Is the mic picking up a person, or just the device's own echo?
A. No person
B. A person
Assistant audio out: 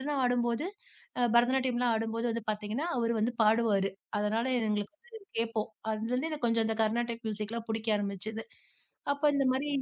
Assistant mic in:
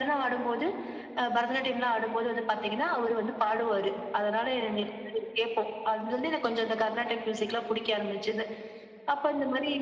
A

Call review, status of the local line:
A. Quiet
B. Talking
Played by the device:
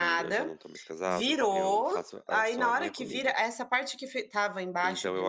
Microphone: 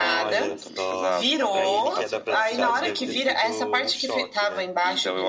B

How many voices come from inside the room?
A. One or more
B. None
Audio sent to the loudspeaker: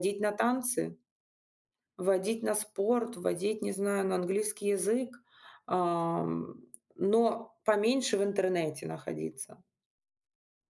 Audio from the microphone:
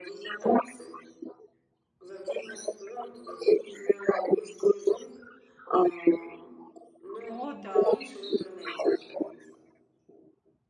A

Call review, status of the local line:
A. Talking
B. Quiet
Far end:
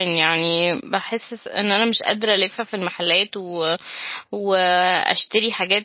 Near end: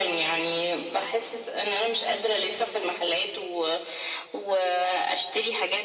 B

